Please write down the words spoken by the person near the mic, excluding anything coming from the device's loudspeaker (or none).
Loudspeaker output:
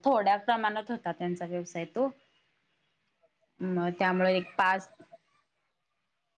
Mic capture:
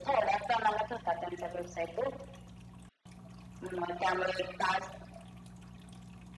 none